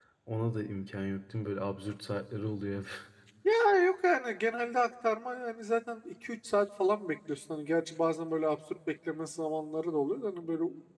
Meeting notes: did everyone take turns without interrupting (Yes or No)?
Yes